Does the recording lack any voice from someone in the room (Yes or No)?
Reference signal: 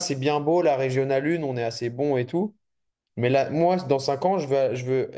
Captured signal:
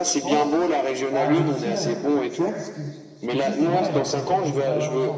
No